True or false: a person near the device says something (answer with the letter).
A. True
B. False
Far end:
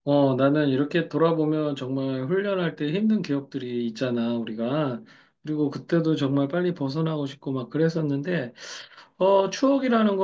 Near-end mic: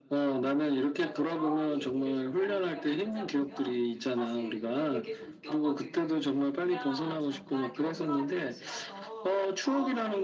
A